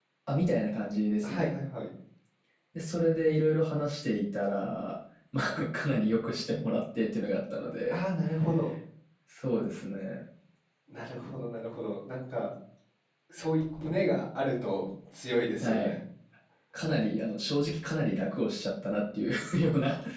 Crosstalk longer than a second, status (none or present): none